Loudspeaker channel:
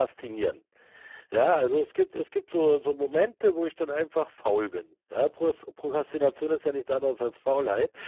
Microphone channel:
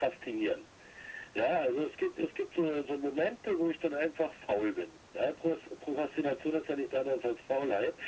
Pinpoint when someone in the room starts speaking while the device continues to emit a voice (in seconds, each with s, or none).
none